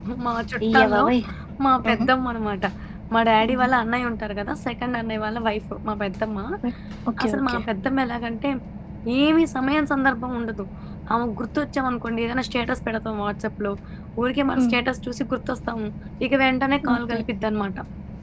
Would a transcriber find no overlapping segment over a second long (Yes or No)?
Yes